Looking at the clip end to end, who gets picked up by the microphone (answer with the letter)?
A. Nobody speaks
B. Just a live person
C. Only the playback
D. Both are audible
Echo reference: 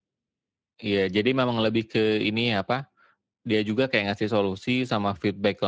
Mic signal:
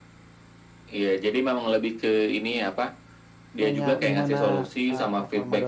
D